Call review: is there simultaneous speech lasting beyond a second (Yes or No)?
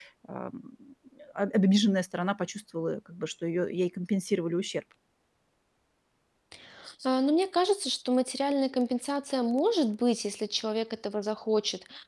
No